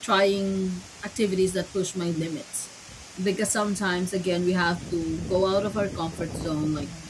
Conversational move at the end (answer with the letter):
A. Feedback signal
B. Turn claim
A